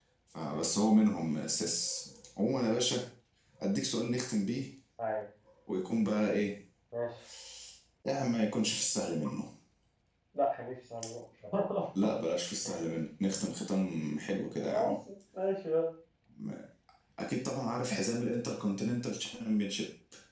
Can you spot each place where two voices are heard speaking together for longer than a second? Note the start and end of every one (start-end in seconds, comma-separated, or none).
none